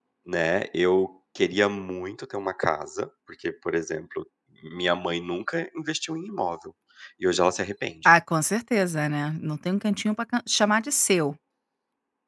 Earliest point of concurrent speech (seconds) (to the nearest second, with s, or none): none